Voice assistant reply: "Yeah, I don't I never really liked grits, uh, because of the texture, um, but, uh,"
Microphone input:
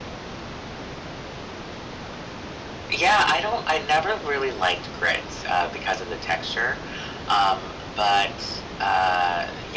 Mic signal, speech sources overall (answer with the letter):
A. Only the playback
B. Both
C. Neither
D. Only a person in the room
A